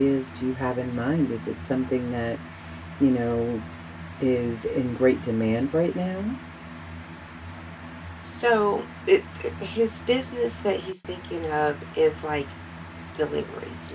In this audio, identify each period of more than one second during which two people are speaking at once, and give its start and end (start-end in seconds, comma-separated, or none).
none